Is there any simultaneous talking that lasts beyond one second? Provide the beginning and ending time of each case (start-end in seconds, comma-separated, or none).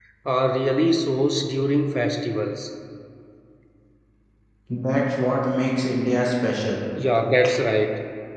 none